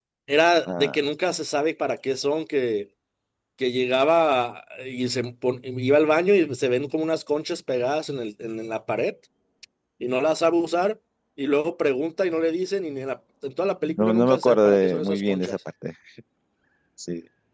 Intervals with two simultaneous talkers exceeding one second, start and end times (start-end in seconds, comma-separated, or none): 14.0-15.6